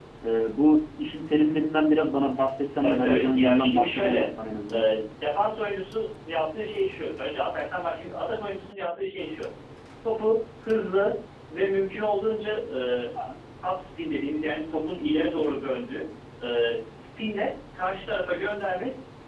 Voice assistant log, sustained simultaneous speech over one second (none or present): present